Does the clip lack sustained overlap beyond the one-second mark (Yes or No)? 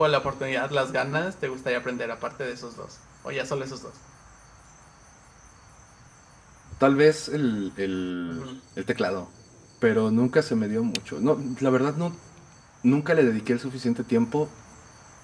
Yes